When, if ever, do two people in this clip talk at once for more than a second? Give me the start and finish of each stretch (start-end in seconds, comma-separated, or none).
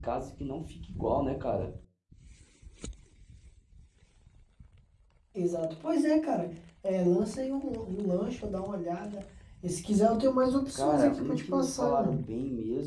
10.8-12.2